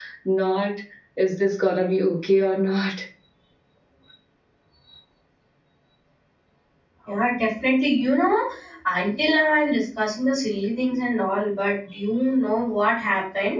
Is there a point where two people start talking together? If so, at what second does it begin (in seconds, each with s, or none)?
none